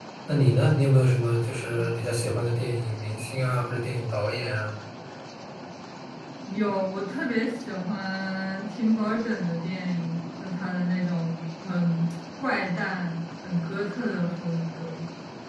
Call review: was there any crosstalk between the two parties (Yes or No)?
No